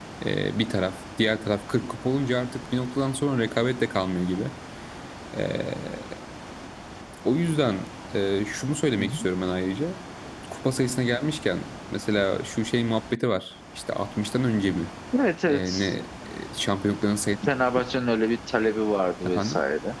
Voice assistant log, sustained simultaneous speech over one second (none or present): none